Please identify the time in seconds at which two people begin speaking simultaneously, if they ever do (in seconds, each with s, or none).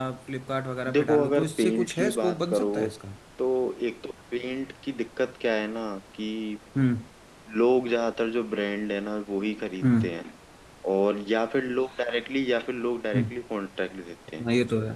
0.9 s